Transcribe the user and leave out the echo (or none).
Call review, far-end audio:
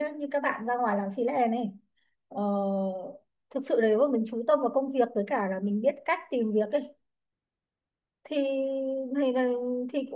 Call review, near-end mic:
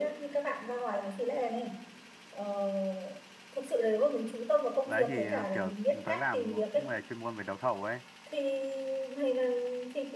đấy thì à, kiểu tớ làm cũng về chuyên môn về đấu thầu ấy